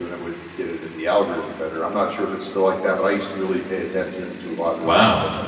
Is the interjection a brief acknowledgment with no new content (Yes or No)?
No